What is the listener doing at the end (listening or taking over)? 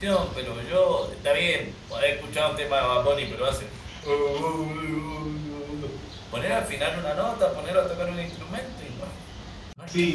taking over